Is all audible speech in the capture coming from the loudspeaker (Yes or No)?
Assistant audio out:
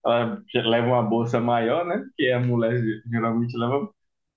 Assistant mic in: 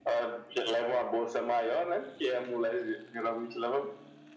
Yes